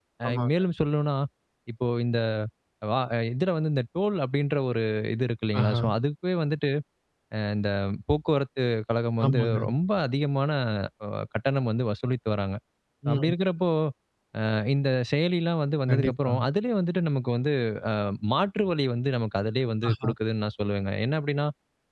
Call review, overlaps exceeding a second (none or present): none